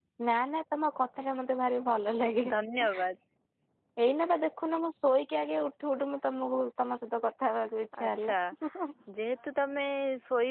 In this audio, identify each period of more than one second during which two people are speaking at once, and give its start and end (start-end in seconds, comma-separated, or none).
none